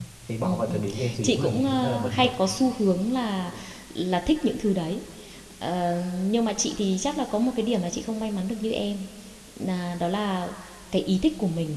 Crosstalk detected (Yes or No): Yes